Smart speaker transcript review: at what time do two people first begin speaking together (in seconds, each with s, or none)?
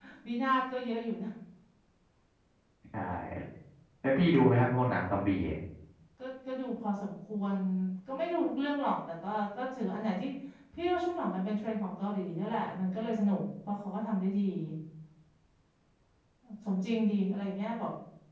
none